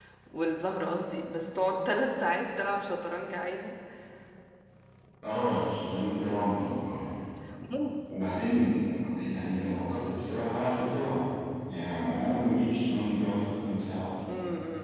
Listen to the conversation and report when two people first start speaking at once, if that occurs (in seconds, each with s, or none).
none